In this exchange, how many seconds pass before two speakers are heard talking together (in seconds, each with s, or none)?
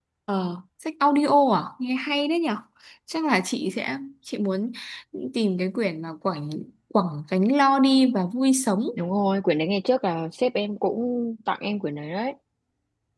none